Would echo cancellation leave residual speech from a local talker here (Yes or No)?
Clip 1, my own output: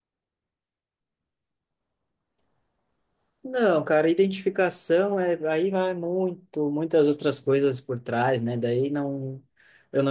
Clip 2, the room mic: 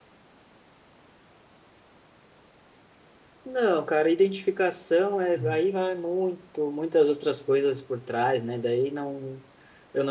Yes